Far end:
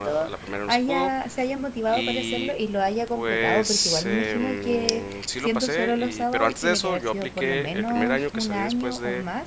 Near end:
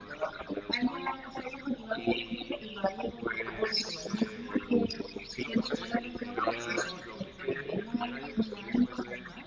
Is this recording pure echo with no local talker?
No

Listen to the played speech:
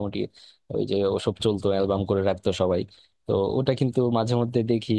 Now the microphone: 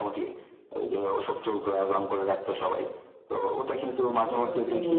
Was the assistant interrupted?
Yes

